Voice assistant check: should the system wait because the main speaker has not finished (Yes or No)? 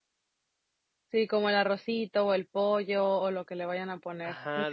No